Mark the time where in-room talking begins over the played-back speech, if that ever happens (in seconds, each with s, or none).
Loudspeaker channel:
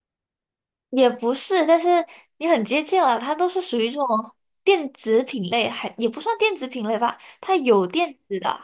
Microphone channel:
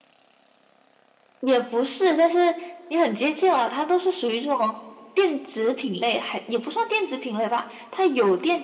none